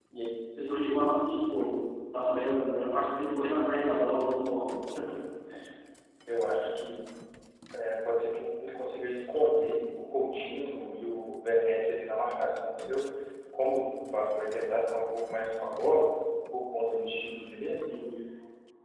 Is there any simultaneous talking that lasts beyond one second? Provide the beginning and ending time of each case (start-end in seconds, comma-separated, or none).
none